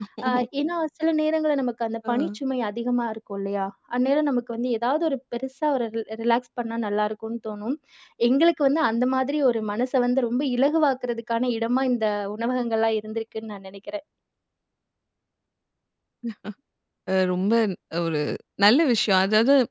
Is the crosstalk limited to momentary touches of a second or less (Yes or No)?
Yes